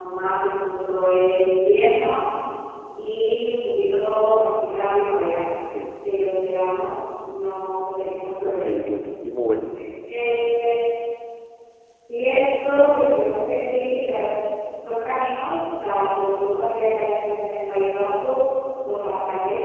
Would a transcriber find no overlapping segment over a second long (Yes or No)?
Yes